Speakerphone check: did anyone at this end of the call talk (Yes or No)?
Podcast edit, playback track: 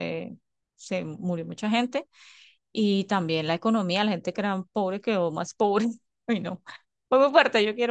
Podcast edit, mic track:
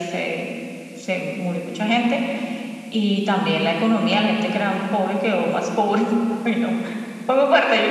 No